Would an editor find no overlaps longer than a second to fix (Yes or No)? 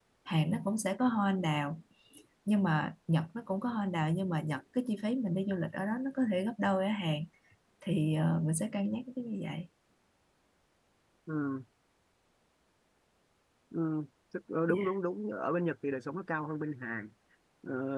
Yes